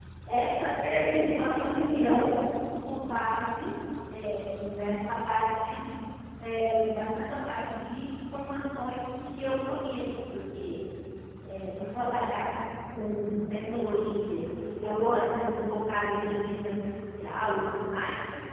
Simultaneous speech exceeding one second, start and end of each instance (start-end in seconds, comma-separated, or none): 0.7-2.2